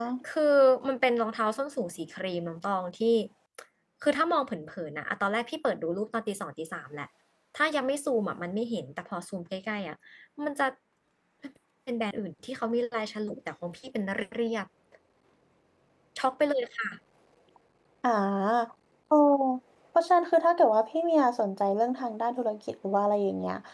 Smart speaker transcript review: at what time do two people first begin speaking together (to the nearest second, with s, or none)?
none